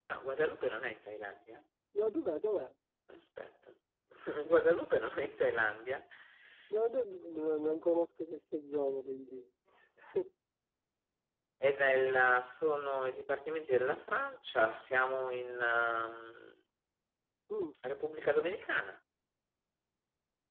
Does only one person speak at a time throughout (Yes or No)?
Yes